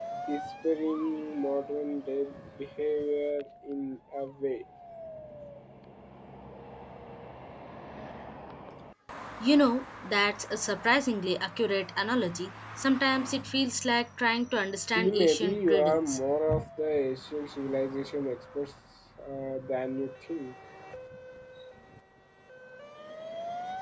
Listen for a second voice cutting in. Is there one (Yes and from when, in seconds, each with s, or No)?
Yes, from 15.0 s